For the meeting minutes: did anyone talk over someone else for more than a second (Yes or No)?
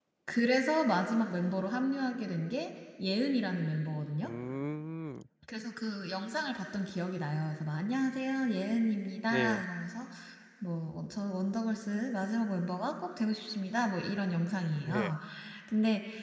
No